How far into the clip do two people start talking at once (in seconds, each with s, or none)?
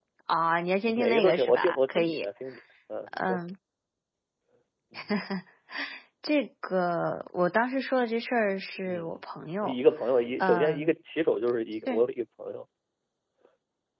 0.9 s